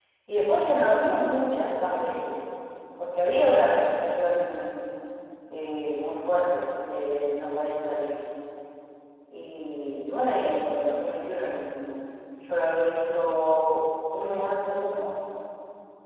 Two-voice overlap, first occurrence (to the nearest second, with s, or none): none